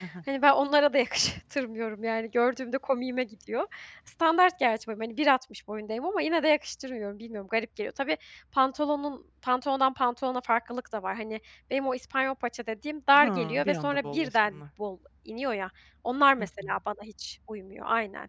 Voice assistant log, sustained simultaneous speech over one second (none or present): present